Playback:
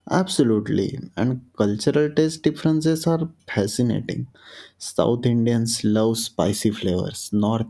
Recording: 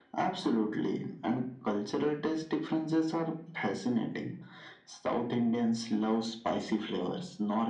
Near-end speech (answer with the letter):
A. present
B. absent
B